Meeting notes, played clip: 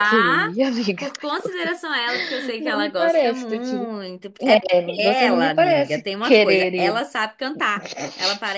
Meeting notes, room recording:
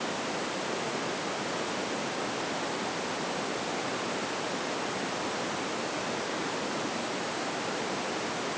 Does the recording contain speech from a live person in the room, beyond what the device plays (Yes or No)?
No